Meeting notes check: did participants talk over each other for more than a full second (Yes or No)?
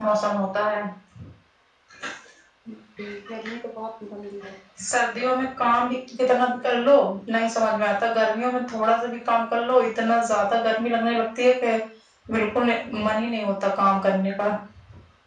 No